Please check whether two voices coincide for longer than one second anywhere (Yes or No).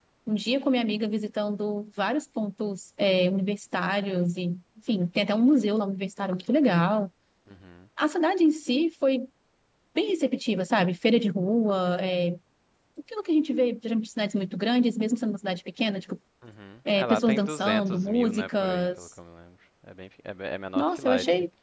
Yes